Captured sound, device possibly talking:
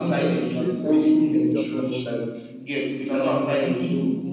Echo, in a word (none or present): present